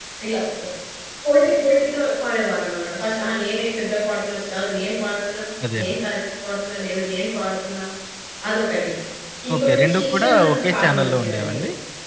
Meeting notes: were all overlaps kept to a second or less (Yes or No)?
No